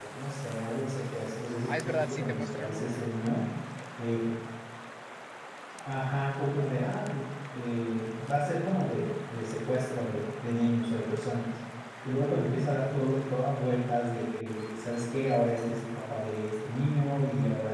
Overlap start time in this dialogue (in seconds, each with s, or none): 1.7 s